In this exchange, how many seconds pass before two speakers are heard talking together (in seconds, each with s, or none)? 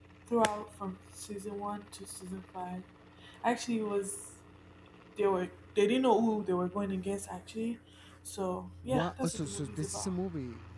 8.8 s